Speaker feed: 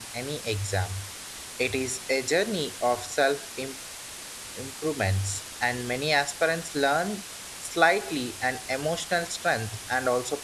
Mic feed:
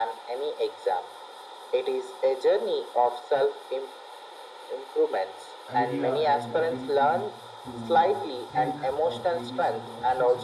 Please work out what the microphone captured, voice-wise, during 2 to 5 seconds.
echo only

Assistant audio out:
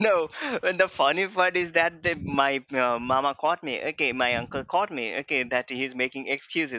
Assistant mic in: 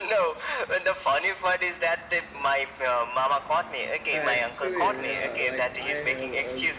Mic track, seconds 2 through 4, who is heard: echo only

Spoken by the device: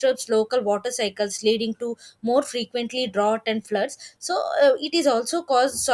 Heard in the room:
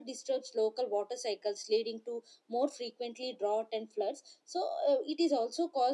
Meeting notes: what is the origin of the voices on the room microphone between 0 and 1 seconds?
echo only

